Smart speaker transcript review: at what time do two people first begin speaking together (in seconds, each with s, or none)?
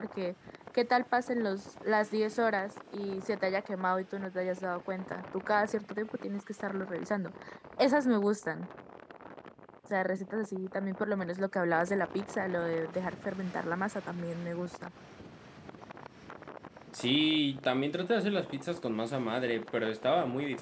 none